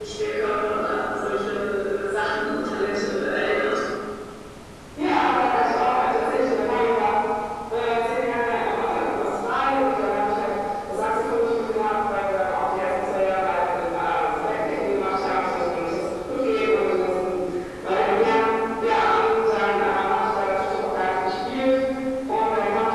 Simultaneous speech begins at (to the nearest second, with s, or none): none